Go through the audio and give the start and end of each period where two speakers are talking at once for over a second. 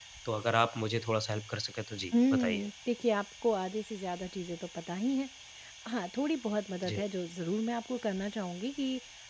none

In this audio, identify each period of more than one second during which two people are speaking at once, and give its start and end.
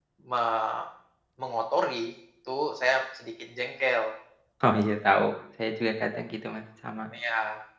none

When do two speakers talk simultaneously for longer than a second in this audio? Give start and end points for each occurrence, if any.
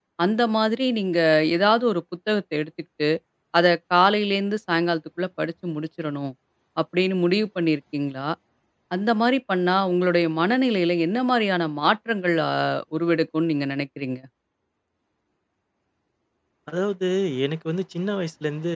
none

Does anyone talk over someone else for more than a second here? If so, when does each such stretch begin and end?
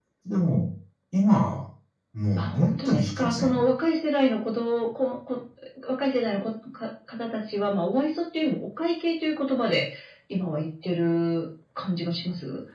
2.4-3.7

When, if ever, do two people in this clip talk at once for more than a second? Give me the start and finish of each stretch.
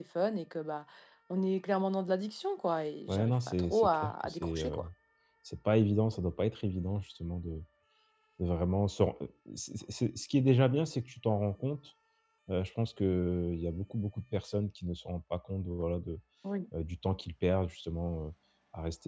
3.1-4.8

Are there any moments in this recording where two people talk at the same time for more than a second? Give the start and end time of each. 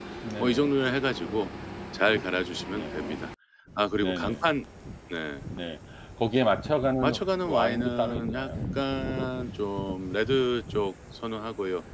7.0-8.5

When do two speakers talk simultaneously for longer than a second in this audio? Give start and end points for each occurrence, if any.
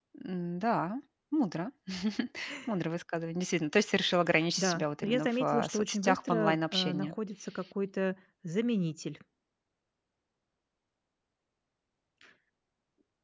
4.6-7.1

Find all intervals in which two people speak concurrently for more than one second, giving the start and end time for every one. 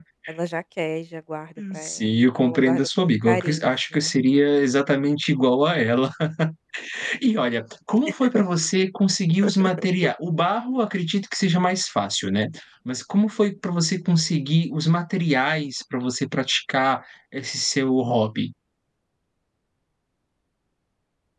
1.7-4.1

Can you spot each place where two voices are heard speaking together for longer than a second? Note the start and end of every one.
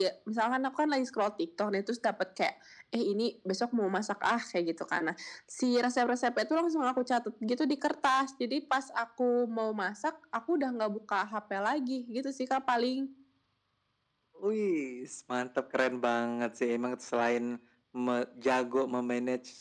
none

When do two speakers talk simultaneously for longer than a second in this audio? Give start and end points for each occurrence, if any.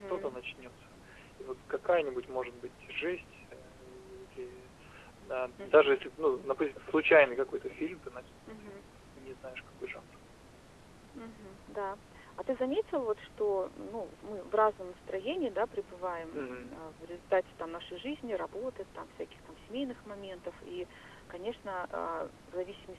6.6-8.0

